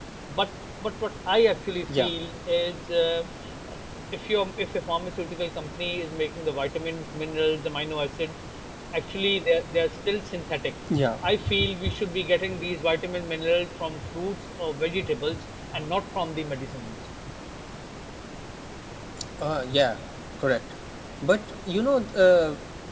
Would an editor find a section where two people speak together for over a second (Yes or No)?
No